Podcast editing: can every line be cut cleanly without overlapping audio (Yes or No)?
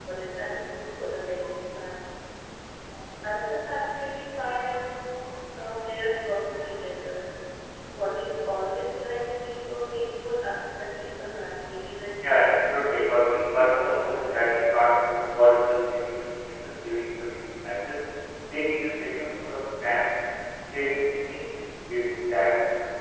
No